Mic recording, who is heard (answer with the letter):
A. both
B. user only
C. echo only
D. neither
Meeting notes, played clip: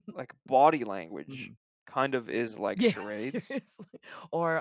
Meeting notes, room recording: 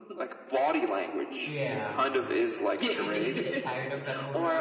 A